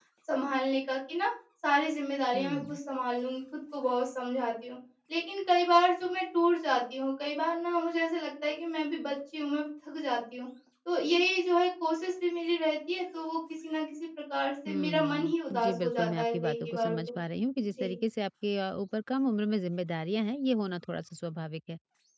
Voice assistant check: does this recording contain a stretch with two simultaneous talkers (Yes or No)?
Yes